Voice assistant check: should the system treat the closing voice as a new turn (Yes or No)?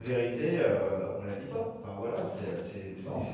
No